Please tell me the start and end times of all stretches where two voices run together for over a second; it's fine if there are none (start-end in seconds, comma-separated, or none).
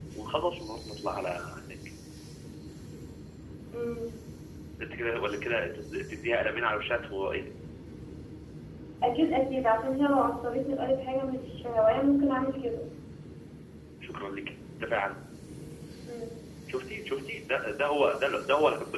none